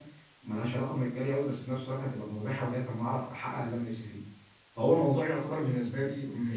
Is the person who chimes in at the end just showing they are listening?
Yes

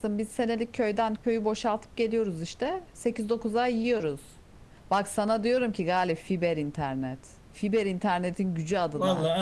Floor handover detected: Yes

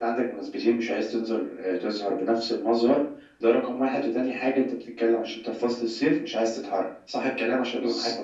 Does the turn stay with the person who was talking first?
No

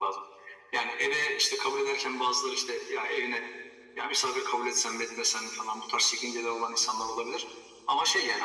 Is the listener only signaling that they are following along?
Yes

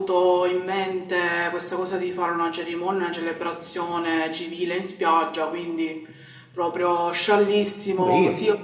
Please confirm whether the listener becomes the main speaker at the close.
Yes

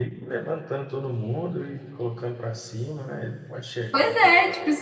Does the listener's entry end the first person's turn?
Yes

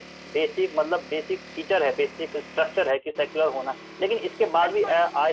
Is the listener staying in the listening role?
Yes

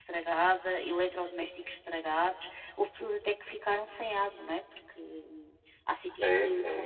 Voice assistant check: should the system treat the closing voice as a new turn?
Yes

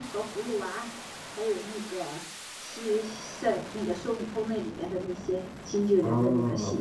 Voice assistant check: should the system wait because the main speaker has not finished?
No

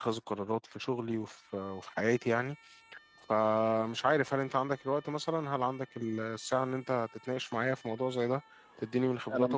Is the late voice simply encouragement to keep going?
Yes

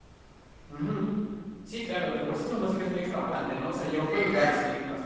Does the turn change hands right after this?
No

